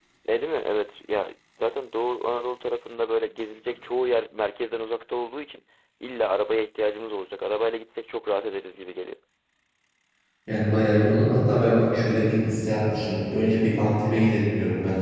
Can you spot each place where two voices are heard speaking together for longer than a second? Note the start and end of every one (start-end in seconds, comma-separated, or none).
none